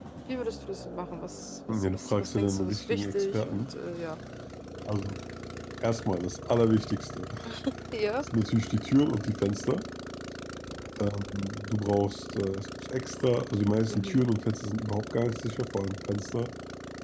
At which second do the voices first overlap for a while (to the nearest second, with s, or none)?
2 s